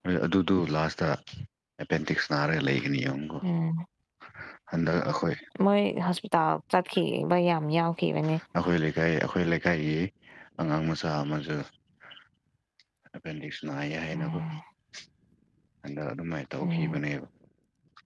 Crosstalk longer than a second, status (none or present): none